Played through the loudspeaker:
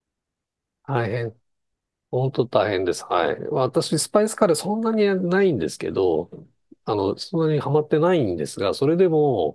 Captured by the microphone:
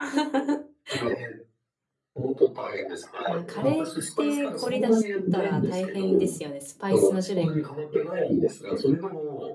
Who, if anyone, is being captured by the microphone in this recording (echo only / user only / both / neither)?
both